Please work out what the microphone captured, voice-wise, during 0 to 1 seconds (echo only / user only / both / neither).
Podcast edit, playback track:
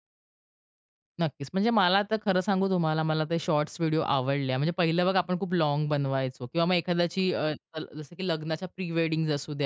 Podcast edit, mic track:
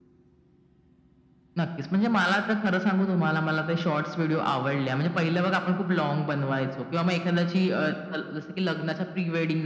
neither